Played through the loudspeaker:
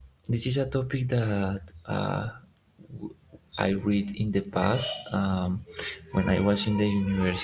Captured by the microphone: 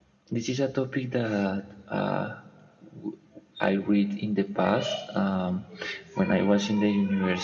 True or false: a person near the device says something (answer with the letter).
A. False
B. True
A